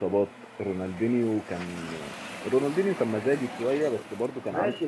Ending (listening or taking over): taking over